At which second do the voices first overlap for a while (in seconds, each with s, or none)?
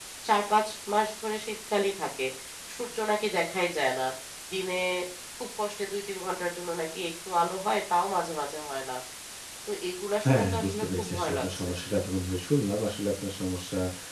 10.2 s